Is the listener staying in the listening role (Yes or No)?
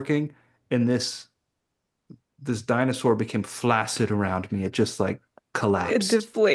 Yes